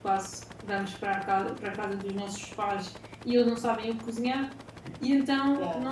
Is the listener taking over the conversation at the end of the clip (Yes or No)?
No